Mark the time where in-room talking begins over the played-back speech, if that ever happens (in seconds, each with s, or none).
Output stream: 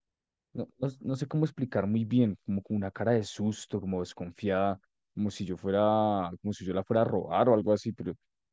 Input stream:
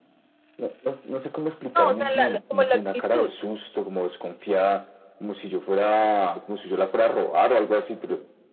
1.8 s